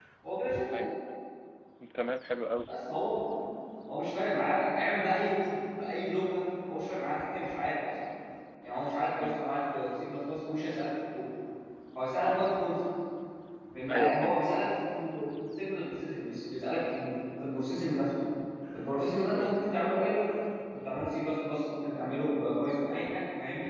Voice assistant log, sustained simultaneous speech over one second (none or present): none